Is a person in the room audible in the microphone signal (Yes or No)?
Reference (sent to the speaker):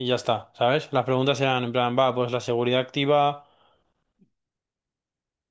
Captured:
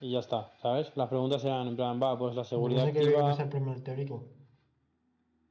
Yes